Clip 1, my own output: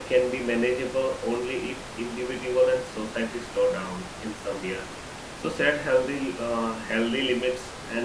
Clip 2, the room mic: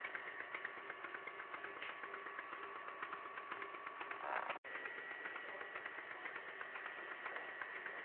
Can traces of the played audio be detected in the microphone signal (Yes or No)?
No